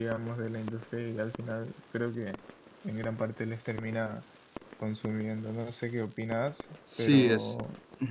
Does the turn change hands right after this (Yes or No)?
Yes